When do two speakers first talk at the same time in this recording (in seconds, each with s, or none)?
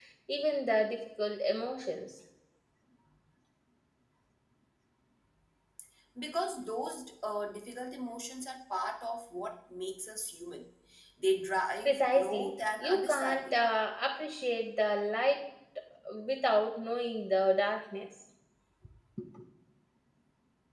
11.8 s